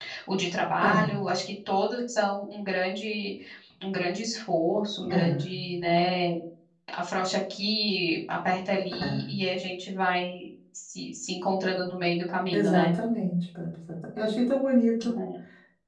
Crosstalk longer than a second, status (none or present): none